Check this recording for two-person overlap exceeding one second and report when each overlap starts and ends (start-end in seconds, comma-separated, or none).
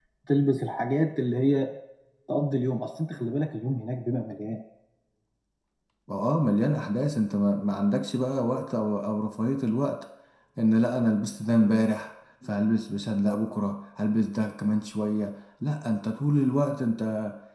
none